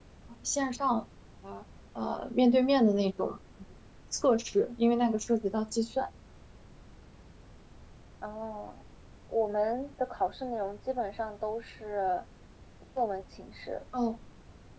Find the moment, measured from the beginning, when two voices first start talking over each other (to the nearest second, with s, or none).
none